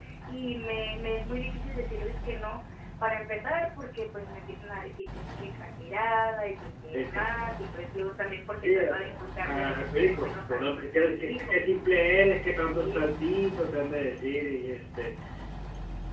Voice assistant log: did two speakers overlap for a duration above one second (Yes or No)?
Yes